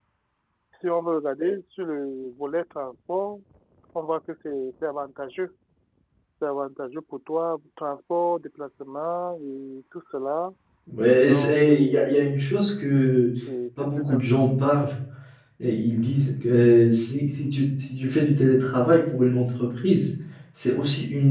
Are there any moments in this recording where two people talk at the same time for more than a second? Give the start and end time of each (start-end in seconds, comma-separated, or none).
11.2-12.4